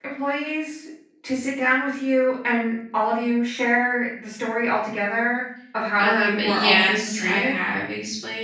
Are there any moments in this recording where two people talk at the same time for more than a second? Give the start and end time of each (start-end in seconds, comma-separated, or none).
6.0-7.6